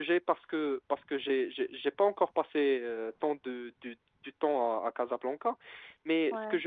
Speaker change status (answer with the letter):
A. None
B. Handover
A